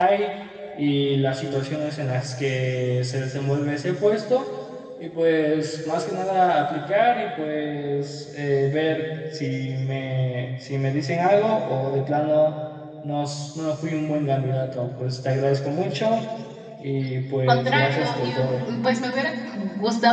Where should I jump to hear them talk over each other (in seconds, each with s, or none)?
17.4 s